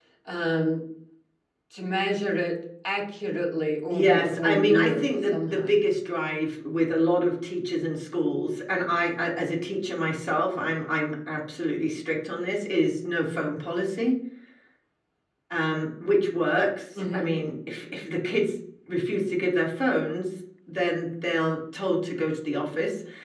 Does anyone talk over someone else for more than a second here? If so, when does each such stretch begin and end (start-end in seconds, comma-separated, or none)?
3.9-5.8